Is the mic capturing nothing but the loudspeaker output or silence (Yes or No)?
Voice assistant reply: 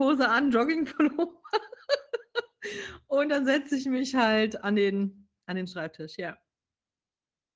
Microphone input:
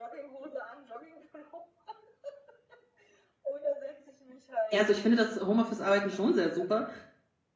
No